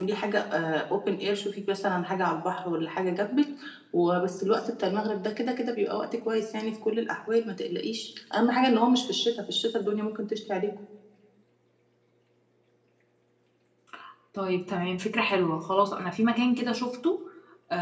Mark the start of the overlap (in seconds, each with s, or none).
none